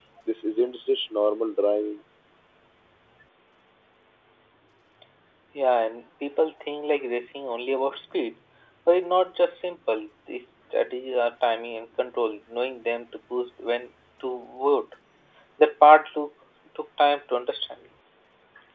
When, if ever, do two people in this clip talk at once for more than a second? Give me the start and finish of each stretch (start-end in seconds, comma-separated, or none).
none